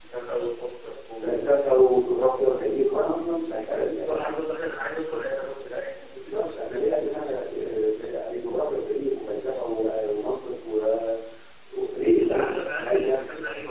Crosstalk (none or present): present